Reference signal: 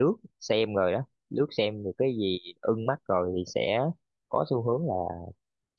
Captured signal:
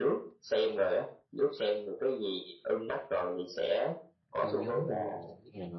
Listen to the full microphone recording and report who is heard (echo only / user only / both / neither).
both